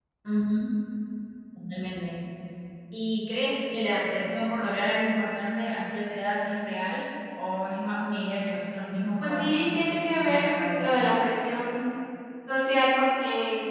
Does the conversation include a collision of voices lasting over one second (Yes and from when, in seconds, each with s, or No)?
Yes, from 9.2 s